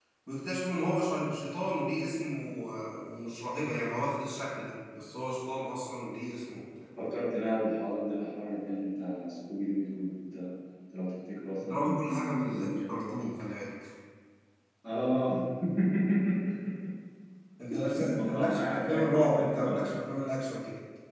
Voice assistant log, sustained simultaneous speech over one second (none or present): present